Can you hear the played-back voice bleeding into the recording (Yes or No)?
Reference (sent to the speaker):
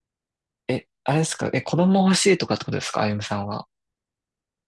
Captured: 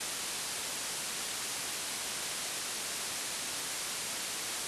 No